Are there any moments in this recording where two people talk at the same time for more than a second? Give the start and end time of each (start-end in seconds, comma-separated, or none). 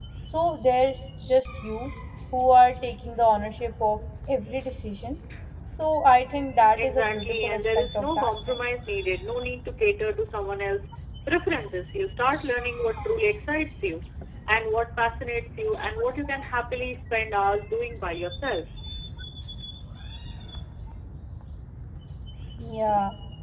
6.8-8.6